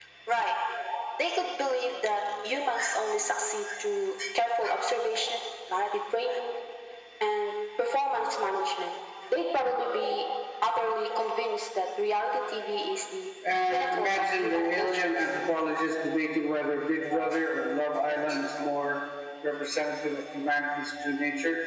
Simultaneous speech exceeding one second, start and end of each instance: 13.7-15.1

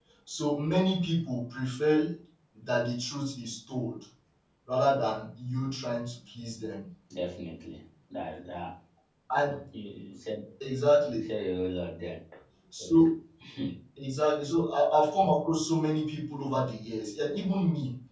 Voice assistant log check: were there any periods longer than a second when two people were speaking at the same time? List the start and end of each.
none

